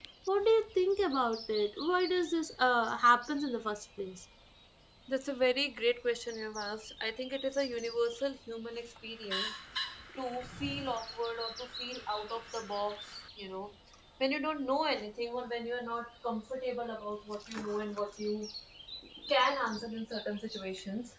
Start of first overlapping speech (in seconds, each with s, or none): none